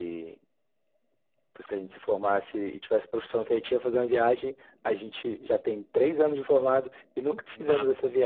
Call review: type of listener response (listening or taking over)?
taking over